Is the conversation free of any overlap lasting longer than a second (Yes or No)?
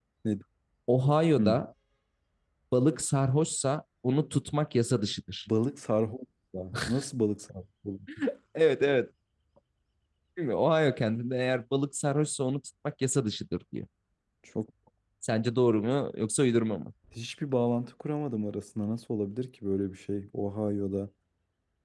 Yes